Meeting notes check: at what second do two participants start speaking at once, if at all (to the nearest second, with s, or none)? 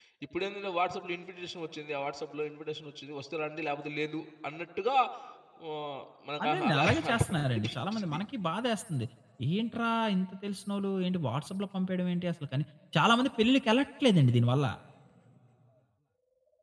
6 s